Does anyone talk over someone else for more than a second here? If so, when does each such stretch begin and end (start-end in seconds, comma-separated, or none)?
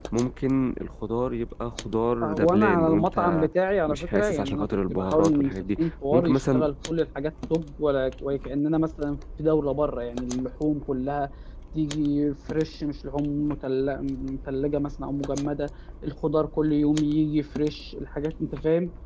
2.2-3.5, 3.9-6.7